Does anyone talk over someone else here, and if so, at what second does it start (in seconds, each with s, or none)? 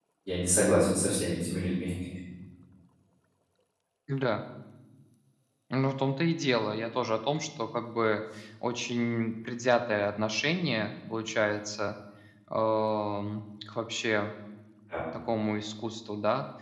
none